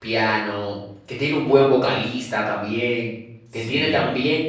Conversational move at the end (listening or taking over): listening